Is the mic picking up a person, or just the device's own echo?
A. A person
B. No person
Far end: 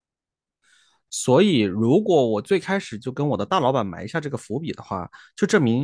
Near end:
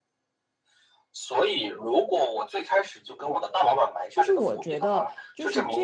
A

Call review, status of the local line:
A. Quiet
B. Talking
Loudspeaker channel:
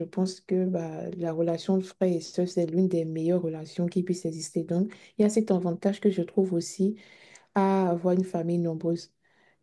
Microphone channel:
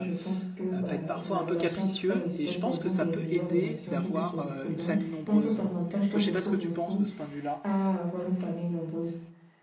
B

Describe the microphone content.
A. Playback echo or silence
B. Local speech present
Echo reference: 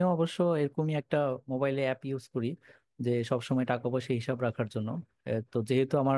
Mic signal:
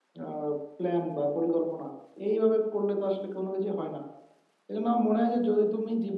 B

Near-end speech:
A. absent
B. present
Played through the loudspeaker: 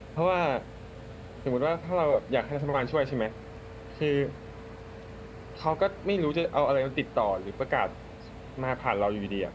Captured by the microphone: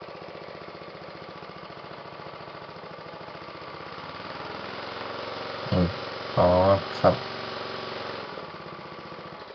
B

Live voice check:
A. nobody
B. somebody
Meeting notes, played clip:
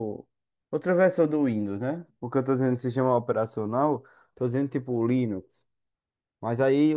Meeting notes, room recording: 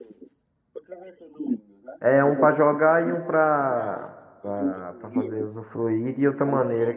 B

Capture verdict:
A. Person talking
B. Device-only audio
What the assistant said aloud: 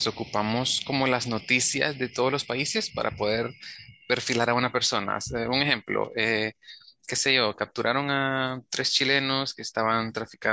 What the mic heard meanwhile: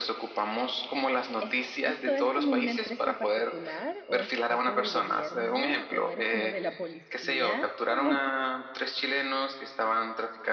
A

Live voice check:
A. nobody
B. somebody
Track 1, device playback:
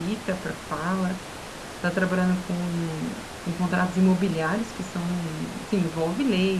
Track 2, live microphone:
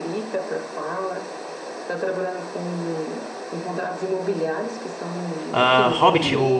B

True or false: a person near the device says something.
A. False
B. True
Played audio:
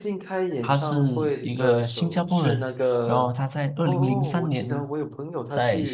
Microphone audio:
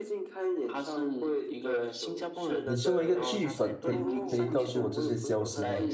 B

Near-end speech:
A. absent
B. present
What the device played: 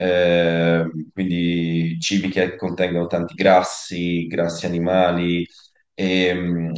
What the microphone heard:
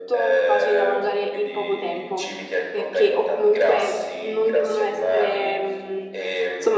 B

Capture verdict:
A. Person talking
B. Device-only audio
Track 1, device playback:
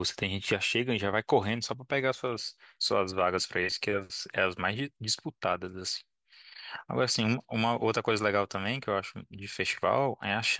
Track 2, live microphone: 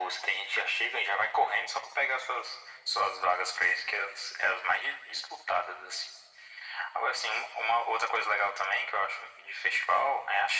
B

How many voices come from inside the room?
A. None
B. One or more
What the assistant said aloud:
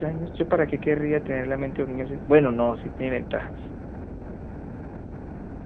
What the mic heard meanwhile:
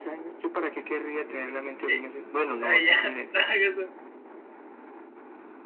B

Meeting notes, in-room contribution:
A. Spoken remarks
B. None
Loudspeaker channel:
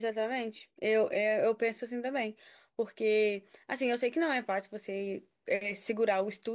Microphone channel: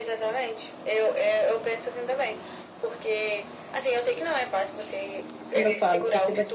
A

